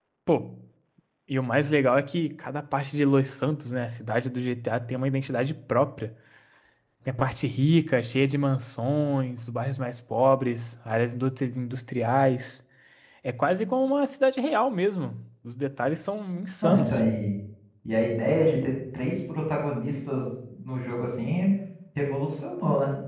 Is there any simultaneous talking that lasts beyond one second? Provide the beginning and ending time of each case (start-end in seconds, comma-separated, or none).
none